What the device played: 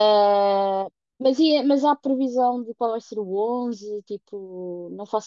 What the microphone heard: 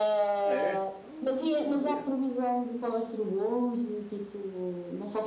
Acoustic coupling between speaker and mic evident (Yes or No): Yes